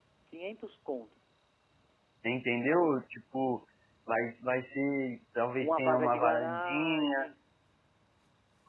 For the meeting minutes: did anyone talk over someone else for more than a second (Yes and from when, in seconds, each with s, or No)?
Yes, from 5.6 s